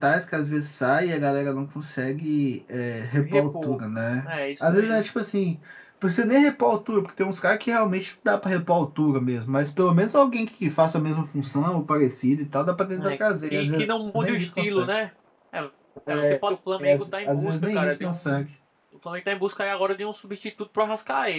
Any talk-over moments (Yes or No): Yes